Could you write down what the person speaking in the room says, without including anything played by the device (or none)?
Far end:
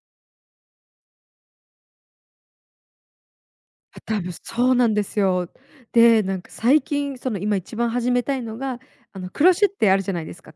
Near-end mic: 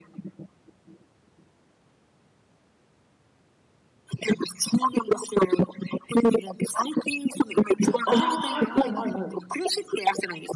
たああ、はいはいはいはい。